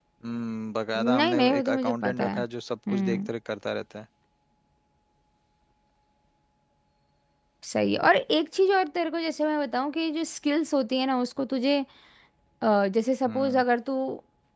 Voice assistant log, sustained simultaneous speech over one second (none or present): present